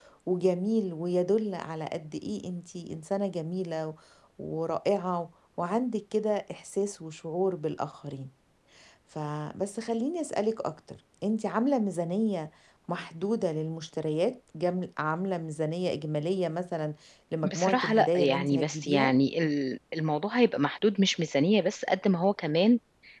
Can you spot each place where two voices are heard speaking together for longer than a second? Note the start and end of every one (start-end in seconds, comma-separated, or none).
17.4-19.1